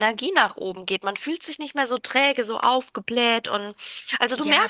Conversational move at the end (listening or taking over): taking over